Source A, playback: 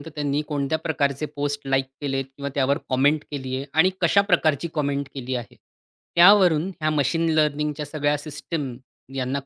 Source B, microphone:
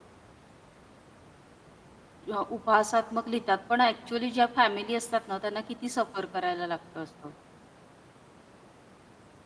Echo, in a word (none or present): none